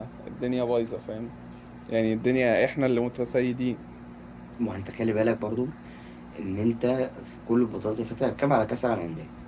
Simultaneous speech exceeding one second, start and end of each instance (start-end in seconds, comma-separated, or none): none